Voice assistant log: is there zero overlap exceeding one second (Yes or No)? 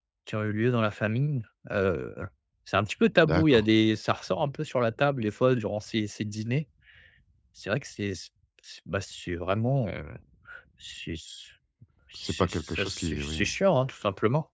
No